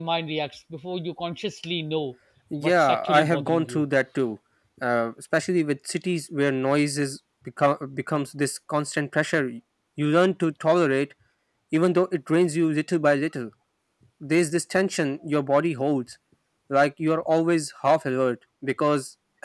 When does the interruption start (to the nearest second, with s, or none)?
3 s